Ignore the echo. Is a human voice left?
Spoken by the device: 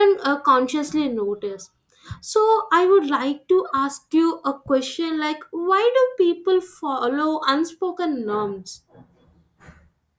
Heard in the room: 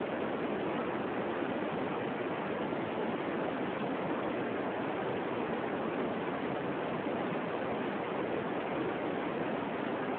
No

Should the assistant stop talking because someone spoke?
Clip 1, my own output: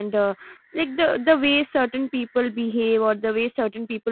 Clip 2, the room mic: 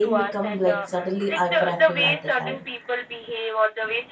Yes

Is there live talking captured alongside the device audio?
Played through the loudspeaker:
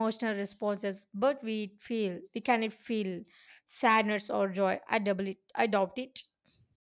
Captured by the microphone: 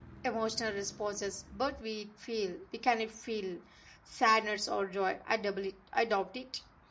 No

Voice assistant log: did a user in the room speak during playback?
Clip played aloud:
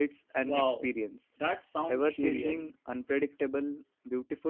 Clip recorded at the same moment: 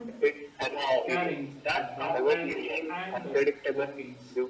Yes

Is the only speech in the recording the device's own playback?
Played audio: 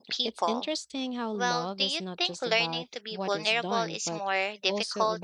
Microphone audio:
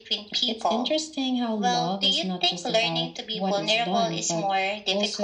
Yes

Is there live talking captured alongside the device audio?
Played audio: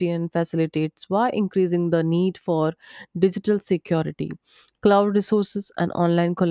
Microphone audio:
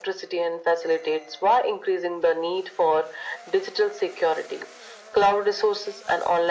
No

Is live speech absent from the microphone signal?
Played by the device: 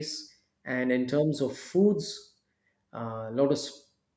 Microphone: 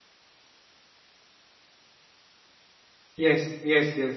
No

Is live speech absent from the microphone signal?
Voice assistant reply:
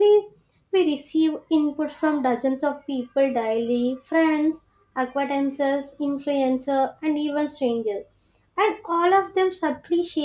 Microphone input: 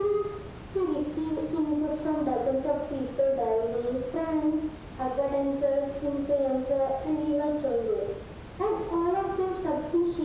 Yes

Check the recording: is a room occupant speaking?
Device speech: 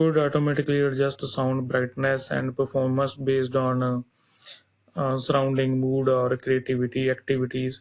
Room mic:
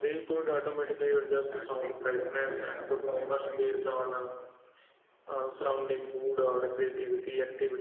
Yes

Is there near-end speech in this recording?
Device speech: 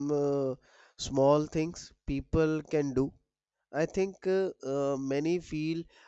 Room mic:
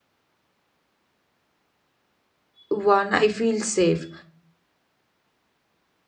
Yes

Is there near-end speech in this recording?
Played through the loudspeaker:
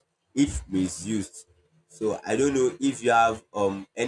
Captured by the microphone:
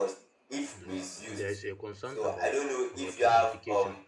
Yes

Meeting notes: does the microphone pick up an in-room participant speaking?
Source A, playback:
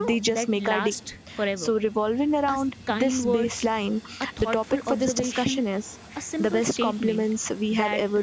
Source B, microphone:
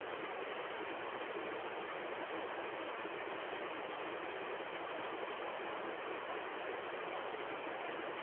No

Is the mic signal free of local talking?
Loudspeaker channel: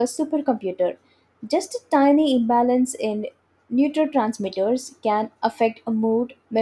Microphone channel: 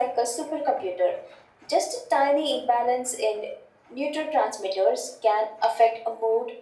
Yes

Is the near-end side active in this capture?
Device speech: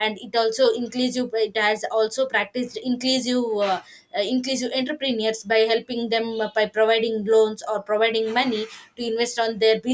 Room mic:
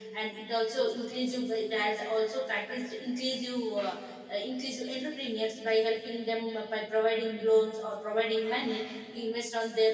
No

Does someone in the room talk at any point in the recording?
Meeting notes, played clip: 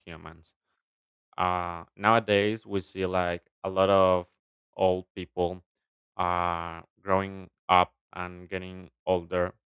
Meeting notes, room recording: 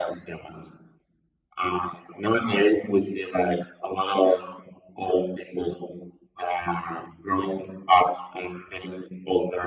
No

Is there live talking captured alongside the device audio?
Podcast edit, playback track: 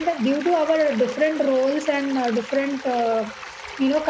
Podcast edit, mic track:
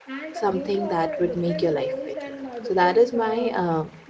Yes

